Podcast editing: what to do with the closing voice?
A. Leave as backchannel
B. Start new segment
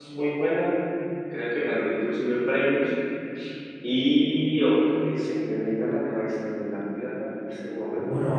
B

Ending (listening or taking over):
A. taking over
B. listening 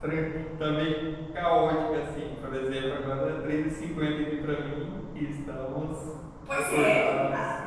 A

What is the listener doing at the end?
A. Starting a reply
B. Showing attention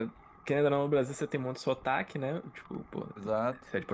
B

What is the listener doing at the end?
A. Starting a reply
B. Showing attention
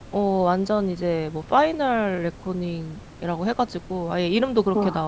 B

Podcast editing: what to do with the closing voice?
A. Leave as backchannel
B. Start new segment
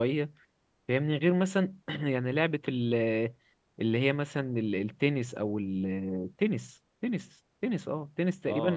B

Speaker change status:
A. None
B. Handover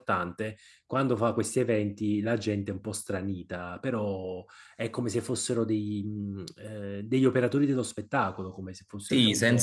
B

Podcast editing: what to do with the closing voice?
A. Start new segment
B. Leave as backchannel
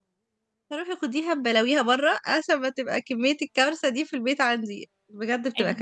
A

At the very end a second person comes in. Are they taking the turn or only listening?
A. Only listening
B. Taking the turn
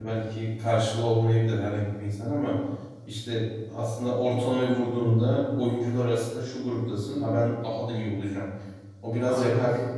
A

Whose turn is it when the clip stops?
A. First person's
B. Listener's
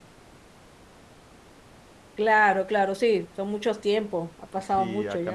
B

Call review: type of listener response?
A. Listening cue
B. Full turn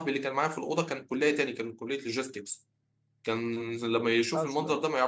A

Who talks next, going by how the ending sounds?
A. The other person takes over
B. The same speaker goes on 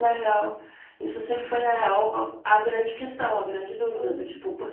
B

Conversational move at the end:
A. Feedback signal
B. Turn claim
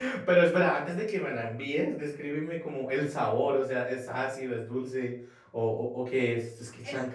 B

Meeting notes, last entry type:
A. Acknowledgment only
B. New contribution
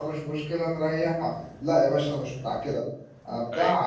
A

